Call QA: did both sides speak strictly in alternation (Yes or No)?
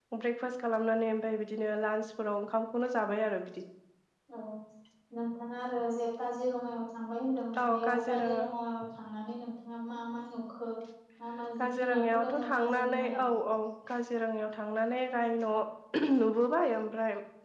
No